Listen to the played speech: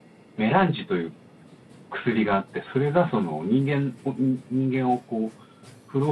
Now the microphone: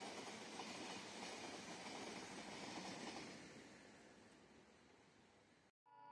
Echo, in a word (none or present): none